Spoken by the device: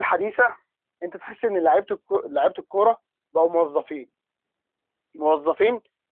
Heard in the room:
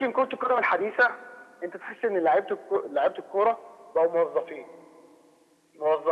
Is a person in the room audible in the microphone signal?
No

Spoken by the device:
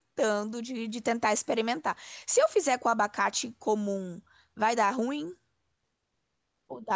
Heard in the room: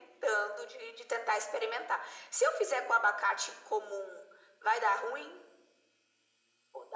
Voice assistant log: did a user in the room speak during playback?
No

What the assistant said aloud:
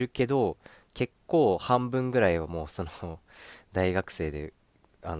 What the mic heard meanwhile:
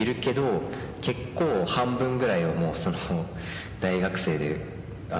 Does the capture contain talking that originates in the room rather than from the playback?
No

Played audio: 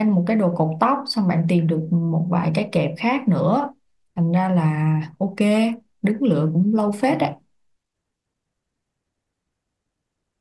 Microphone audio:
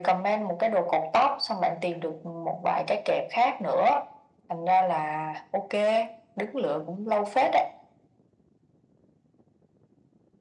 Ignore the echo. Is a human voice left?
No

